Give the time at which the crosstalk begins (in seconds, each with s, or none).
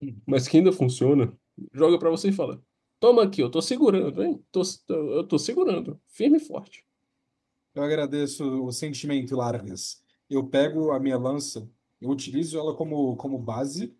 none